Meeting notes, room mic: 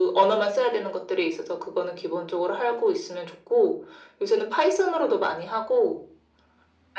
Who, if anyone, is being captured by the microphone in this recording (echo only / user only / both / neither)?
echo only